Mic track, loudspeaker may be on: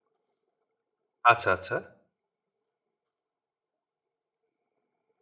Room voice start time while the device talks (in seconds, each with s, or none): 1.3 s